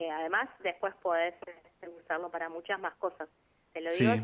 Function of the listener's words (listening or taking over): listening